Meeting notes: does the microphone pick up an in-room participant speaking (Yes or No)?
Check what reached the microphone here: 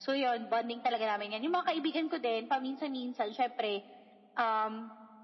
No